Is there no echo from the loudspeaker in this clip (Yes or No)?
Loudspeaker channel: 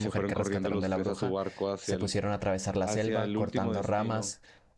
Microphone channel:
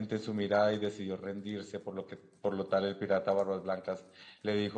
Yes